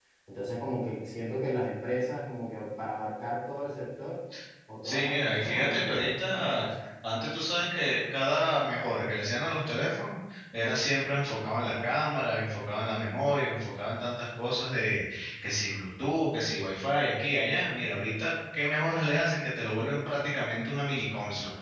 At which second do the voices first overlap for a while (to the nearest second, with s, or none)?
5 s